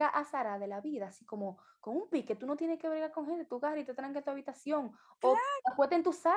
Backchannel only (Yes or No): Yes